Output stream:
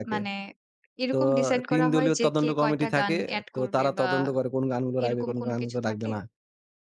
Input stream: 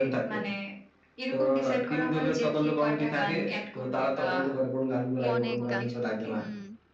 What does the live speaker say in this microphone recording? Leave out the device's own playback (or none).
অনেক গান। হুম।